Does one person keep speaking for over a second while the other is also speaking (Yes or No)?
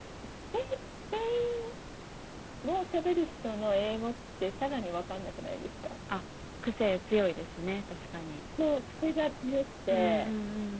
No